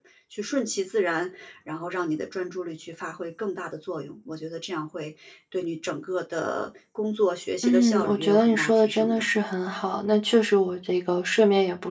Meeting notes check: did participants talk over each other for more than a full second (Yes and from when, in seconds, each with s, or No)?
Yes, from 7.6 s